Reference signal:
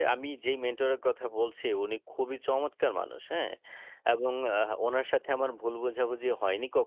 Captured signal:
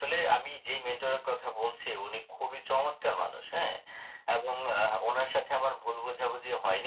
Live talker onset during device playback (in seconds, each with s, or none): none